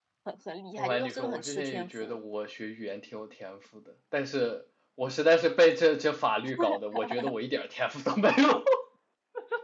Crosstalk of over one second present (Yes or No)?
Yes